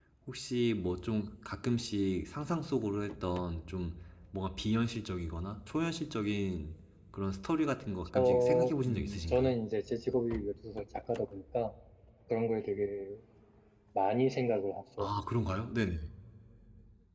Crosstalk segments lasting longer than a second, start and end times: 8.1-9.5

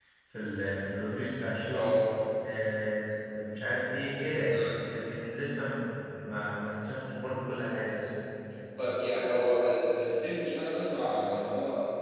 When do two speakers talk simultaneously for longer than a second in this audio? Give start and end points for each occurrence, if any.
none

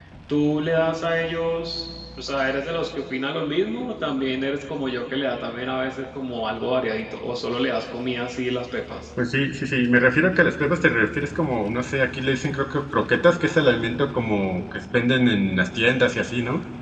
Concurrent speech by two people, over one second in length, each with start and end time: none

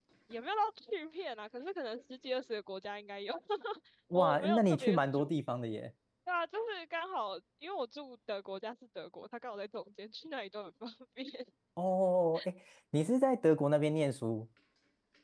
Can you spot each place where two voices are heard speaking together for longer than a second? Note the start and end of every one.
4.1-5.4

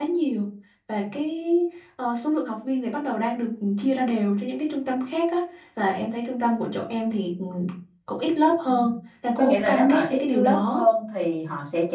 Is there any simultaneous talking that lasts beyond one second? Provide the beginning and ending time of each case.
9.4-10.8

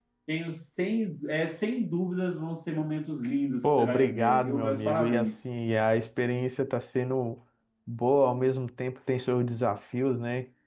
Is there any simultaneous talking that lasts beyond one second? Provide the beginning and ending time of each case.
3.6-5.3

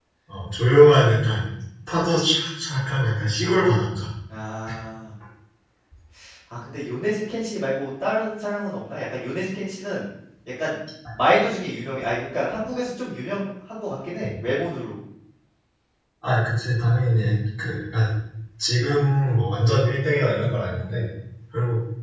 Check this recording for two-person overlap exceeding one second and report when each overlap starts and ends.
none

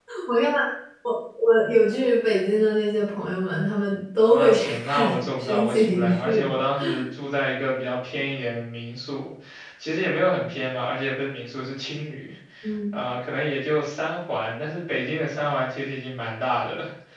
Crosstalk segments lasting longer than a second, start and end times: 4.3-6.5

